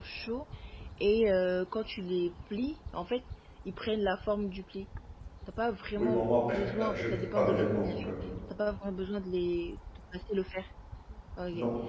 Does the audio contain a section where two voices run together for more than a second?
Yes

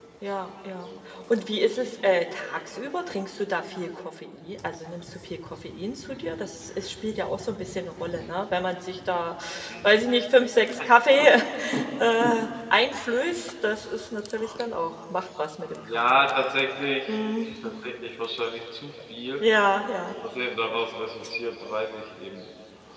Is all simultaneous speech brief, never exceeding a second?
Yes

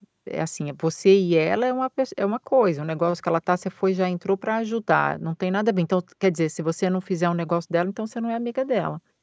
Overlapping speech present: No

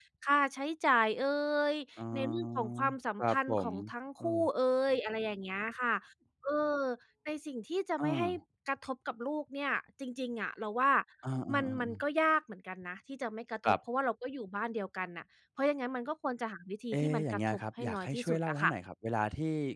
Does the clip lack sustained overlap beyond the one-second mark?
No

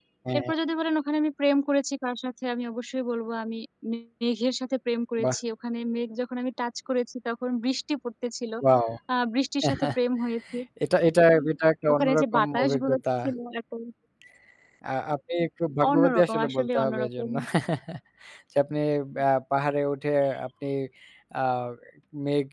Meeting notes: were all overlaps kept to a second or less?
No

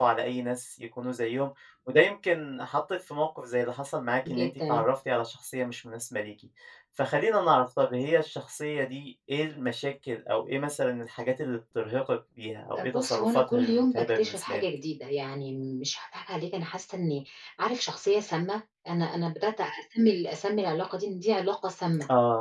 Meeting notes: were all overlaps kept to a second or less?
No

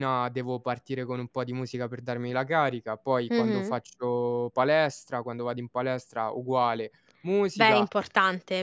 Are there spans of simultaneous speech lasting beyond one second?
No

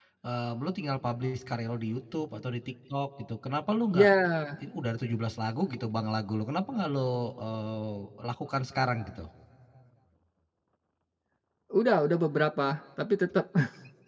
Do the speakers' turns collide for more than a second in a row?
No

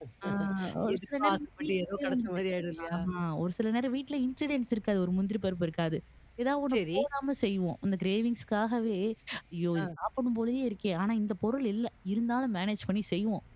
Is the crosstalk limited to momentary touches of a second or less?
No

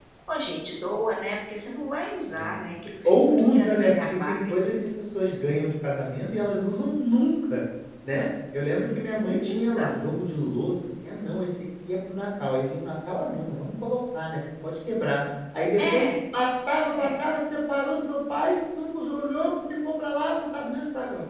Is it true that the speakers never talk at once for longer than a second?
No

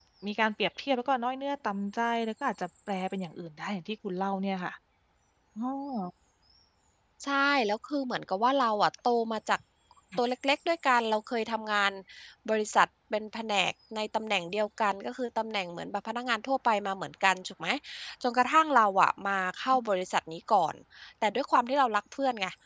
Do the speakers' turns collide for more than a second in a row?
No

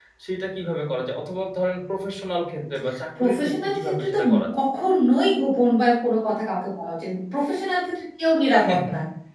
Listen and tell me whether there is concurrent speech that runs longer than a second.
Yes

